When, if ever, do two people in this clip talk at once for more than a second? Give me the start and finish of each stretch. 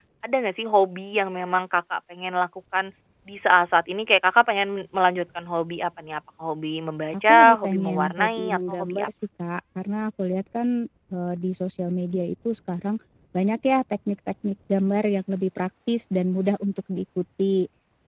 7.1-9.1

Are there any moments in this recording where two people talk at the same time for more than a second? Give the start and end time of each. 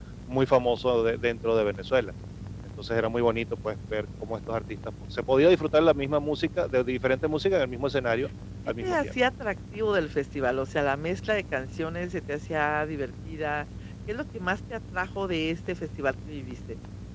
none

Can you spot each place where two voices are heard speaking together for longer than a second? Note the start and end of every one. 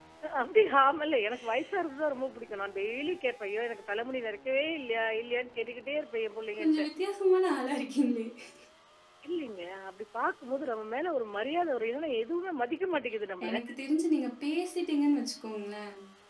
none

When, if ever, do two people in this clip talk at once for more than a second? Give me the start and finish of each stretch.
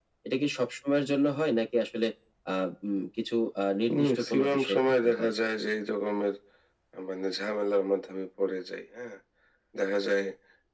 4.1-5.3

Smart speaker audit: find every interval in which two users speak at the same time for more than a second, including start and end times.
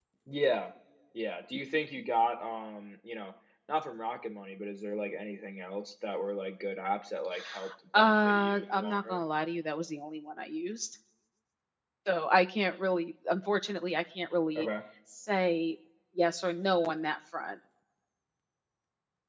8.0-9.2

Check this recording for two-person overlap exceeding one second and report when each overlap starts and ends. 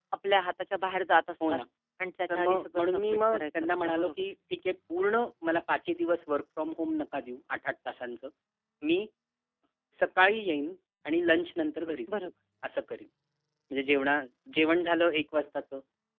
2.3-4.2

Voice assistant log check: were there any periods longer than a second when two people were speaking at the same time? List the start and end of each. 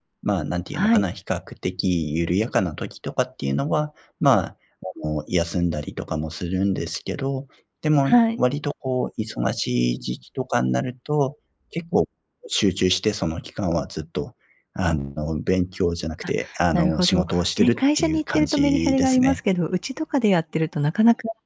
16.7-19.4

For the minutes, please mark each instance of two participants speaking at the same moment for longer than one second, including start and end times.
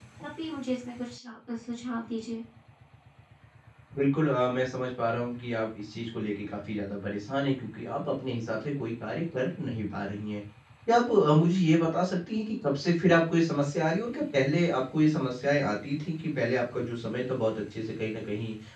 none

